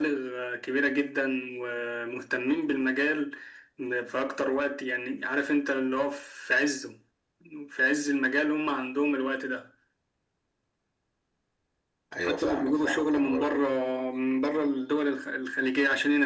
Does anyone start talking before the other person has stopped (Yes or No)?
Yes